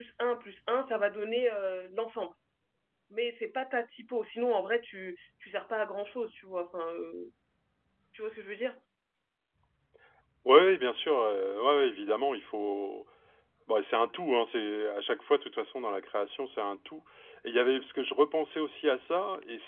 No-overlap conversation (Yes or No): Yes